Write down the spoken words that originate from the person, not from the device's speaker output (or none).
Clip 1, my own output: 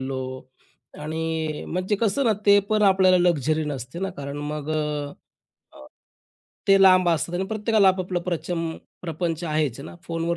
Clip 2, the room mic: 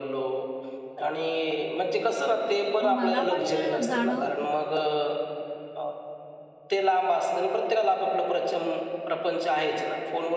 तर मला पण ते जाणवतं.